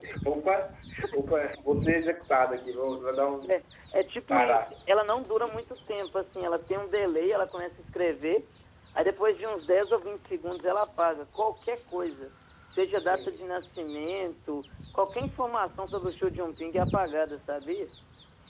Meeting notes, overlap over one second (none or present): none